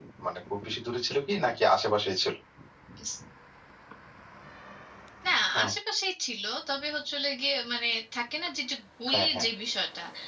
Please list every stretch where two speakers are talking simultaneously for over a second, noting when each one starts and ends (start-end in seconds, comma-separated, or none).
none